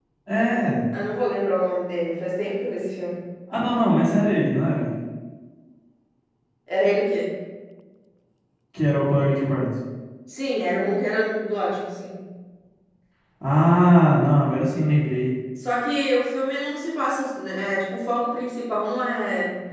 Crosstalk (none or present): none